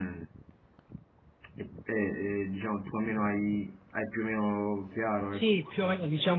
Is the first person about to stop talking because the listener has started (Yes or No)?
Yes